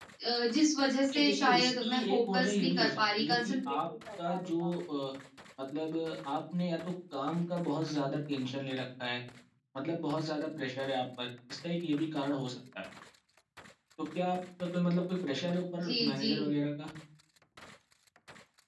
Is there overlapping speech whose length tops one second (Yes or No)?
Yes